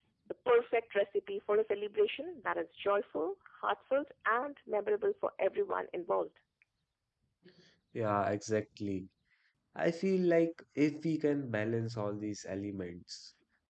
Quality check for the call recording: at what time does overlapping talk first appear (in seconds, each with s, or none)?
none